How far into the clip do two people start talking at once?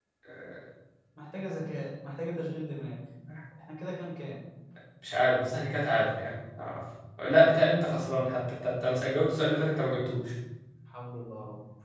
none

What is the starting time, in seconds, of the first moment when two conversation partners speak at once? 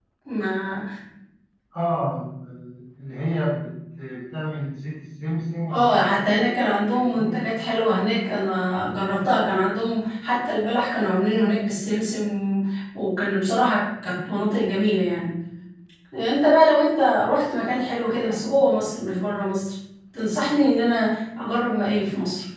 5.7 s

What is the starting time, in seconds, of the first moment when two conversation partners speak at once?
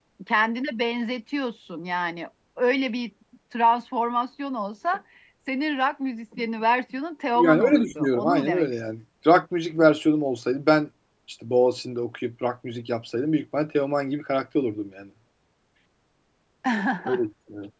7.3 s

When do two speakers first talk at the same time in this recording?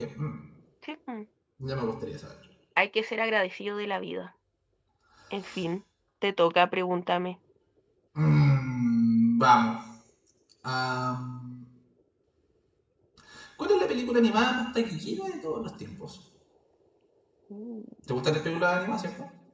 none

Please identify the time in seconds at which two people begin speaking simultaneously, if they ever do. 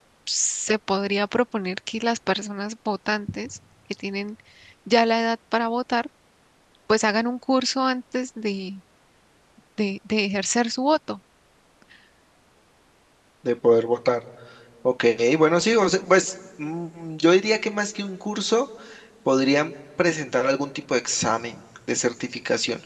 none

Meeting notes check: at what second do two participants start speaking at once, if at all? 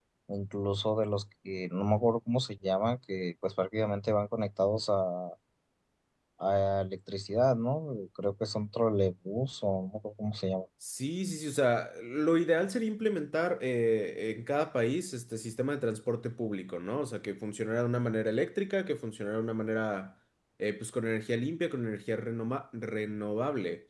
none

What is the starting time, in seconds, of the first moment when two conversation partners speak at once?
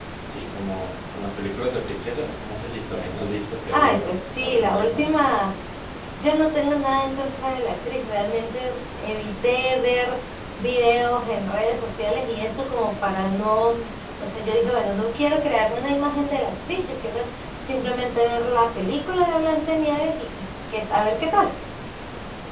3.7 s

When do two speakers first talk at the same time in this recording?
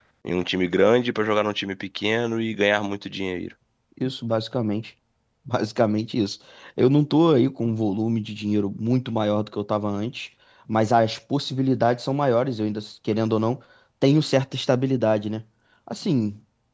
none

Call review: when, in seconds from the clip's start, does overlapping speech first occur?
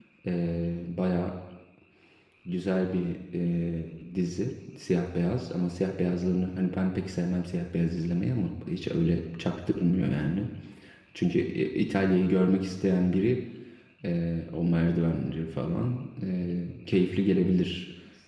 none

